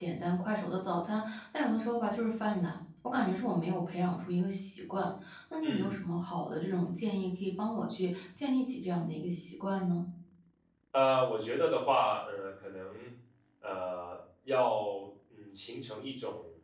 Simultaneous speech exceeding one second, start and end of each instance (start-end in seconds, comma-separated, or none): none